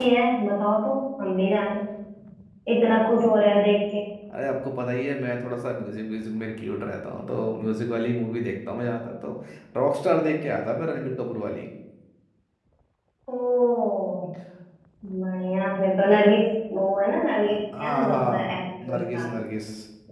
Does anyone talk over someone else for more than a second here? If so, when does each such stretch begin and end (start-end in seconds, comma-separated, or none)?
17.4-19.2